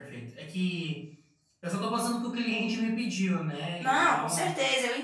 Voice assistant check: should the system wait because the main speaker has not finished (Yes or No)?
No